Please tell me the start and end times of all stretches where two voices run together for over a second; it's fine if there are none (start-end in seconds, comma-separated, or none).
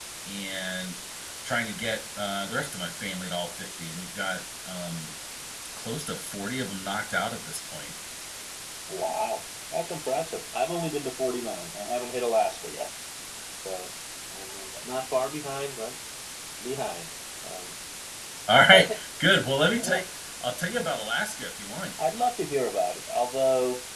none